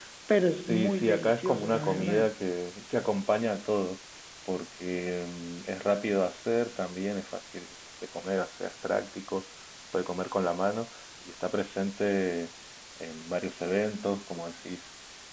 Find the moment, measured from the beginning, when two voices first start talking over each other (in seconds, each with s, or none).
0.6 s